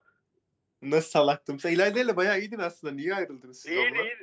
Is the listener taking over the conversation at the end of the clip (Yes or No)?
Yes